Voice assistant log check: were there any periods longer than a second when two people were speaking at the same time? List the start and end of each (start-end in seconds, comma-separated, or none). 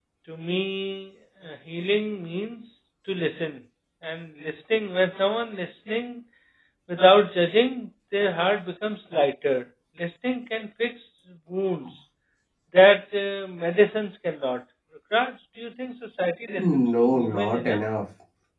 16.6-17.8